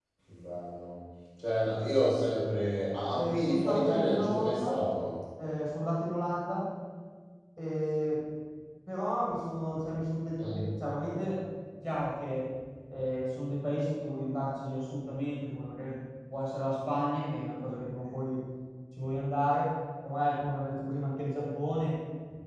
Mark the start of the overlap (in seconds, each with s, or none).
3.1 s